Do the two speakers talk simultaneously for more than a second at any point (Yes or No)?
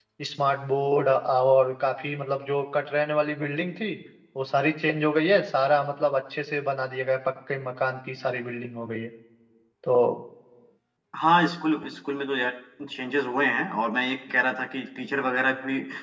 No